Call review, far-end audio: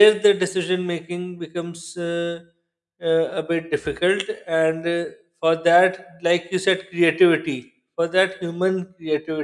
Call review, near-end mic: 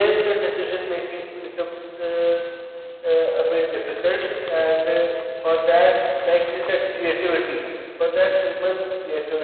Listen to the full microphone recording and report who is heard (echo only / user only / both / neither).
echo only